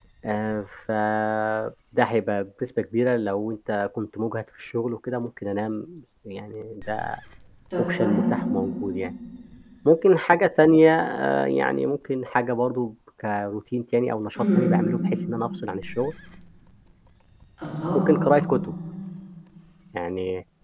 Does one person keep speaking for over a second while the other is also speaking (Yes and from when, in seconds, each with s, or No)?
No